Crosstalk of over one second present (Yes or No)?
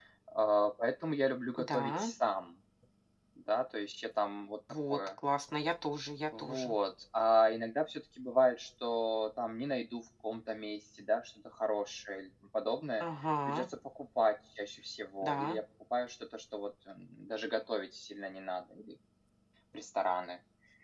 No